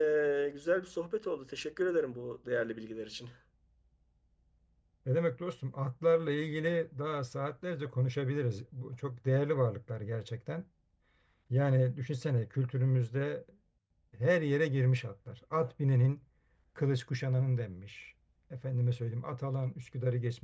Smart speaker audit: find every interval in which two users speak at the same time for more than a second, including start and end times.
none

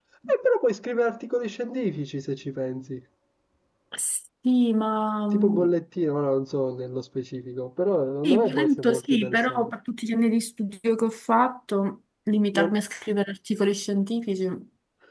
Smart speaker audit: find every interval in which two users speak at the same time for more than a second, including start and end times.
8.2-9.7

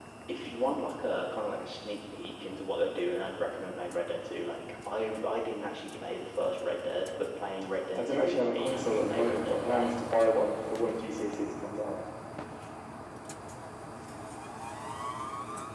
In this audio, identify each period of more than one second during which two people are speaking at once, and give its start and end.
7.9-9.9

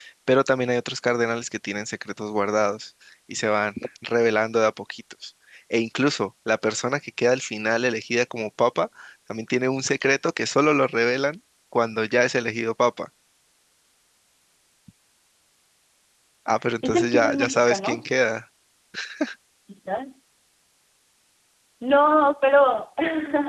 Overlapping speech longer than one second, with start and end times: 16.8-18.0

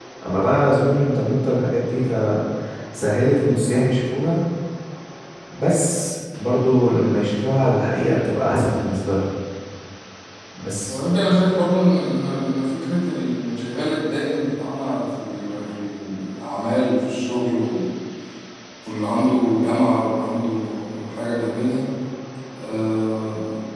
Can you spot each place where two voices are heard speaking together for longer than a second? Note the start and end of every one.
none

